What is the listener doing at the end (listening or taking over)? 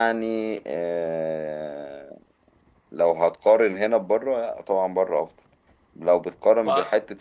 listening